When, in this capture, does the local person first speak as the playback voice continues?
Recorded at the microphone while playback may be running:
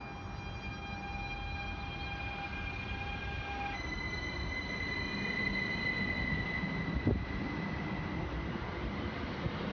none

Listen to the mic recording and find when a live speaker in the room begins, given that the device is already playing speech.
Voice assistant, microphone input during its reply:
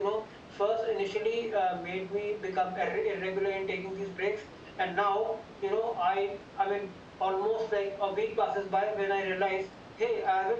none

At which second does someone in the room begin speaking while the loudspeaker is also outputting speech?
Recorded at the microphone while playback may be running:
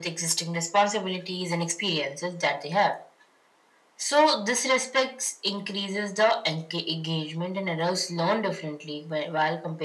none

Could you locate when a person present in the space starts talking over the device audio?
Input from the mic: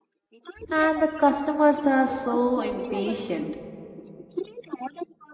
0.7 s

